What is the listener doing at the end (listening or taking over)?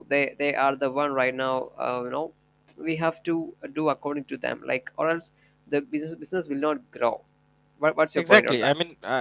taking over